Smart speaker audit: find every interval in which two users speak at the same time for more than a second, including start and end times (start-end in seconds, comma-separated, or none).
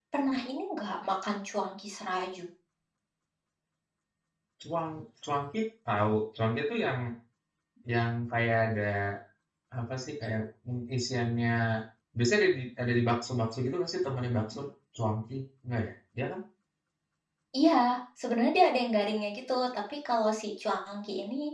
none